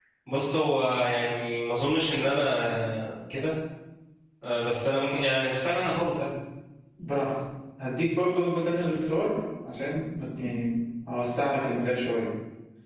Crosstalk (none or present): none